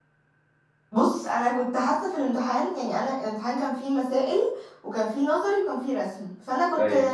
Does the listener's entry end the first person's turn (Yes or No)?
No